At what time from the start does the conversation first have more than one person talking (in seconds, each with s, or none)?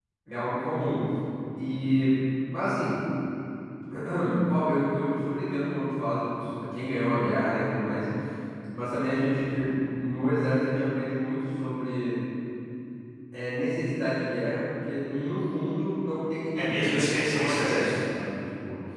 16.6 s